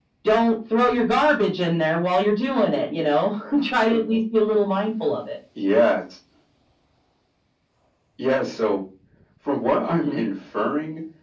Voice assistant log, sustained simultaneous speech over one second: none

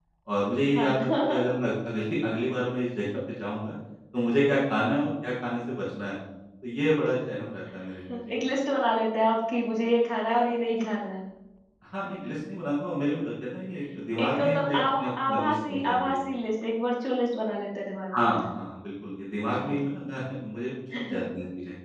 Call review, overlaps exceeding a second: present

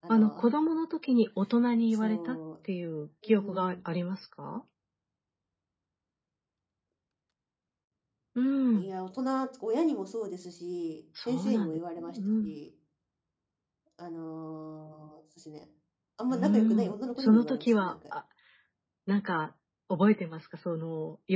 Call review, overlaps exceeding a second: present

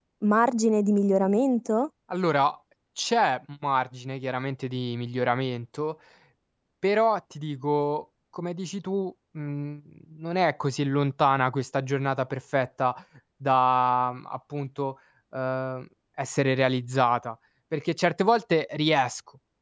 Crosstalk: none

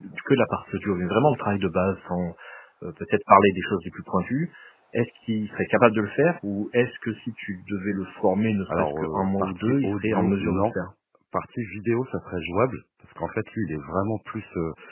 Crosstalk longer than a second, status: present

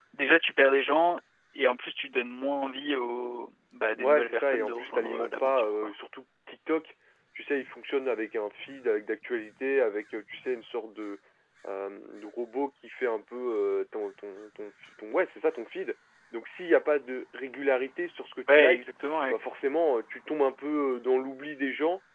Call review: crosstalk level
present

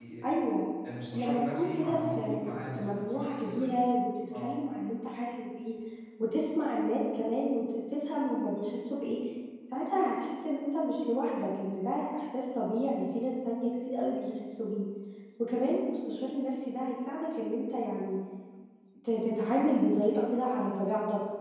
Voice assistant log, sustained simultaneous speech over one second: present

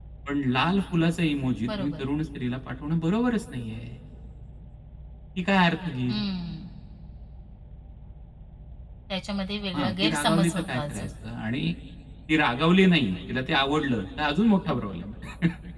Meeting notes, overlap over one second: present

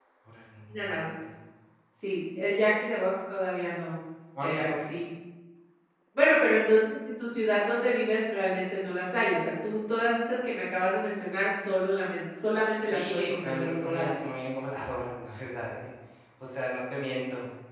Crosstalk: present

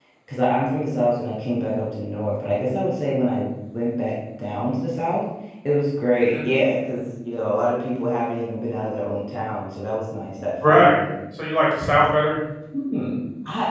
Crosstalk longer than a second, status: none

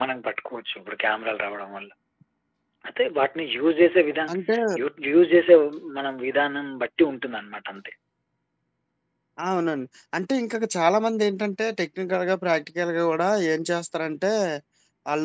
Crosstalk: none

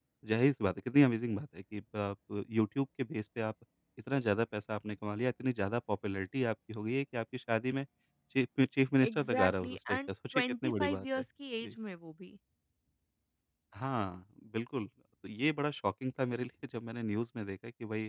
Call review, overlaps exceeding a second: present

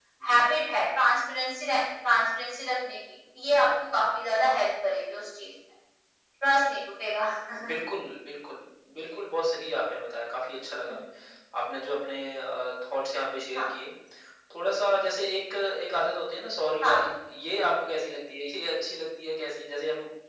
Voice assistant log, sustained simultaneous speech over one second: none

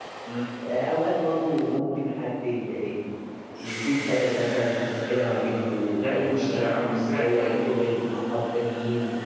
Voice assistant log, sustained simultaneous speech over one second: present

